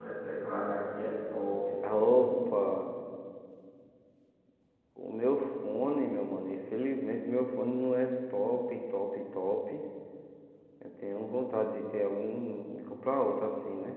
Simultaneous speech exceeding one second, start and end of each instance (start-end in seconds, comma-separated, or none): none